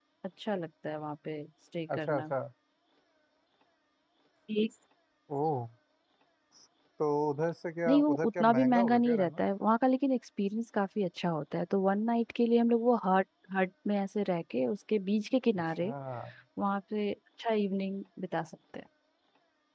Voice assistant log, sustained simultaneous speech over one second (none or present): present